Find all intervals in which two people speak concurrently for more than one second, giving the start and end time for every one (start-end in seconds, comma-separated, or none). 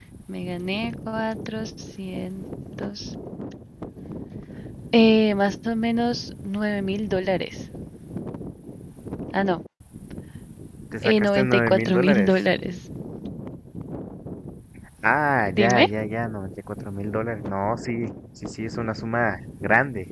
11.0-12.3